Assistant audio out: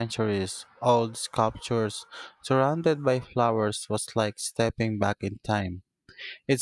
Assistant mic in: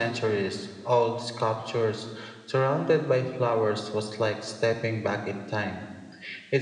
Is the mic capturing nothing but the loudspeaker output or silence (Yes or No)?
Yes